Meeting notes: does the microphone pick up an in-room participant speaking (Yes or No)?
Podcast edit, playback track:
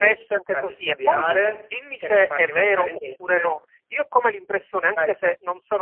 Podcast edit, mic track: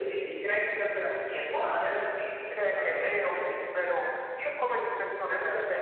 No